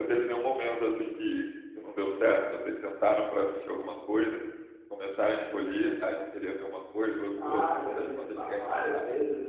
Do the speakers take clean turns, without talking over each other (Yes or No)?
No